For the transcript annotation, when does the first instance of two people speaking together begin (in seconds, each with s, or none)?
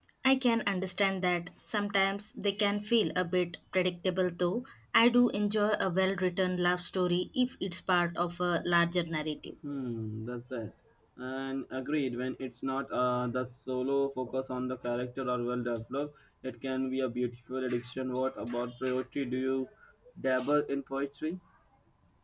none